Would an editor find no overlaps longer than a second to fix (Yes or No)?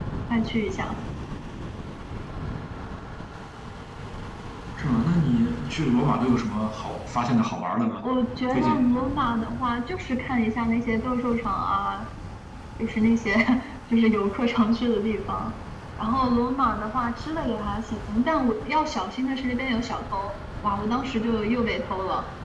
Yes